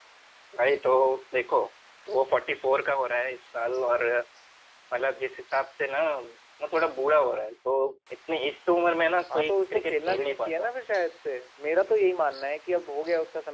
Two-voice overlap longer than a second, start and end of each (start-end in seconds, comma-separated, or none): 9.3-10.7